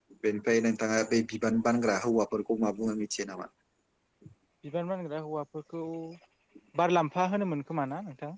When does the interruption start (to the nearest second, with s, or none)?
none